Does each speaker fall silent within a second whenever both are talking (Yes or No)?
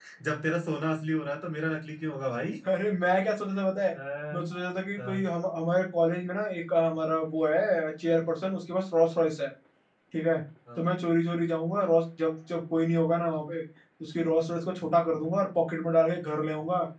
Yes